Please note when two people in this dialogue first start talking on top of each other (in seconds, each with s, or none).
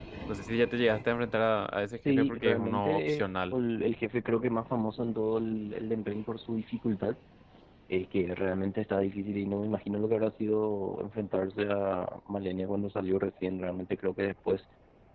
2.0 s